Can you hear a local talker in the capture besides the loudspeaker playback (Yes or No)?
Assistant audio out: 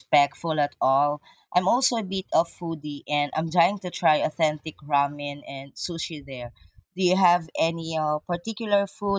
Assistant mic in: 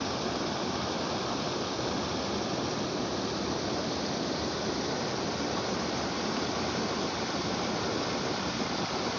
No